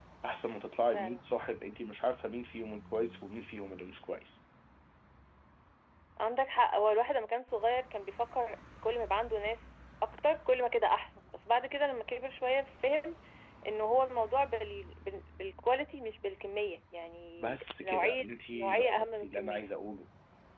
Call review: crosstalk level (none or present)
present